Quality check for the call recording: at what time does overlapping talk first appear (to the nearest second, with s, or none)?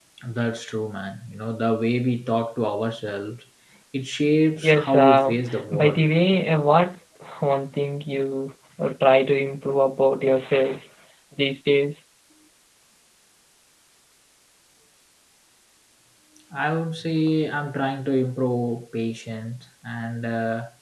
5 s